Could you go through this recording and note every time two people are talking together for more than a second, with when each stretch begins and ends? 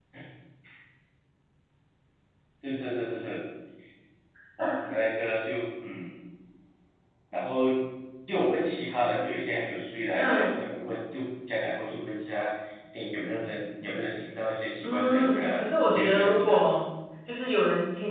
14.8-16.6

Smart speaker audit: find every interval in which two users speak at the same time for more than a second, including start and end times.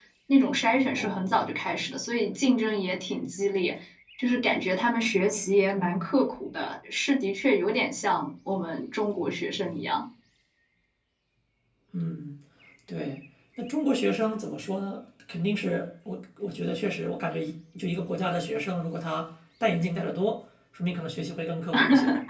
none

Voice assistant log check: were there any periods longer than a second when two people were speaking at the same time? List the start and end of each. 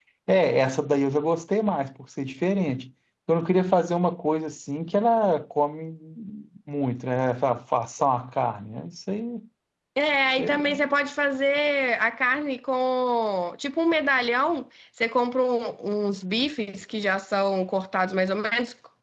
none

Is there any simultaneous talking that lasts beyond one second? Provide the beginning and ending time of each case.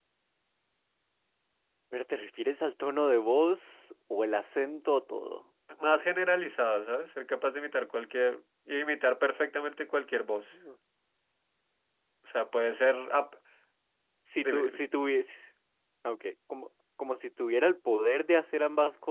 none

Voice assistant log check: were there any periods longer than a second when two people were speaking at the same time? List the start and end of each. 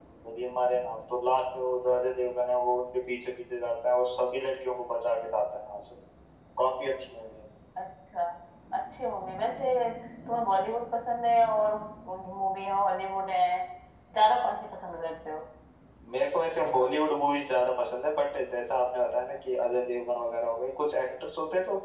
none

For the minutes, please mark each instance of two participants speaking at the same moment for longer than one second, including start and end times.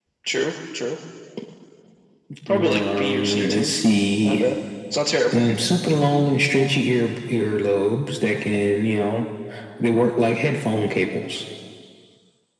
2.5-3.7

